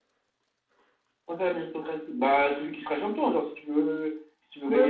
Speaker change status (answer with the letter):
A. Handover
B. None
A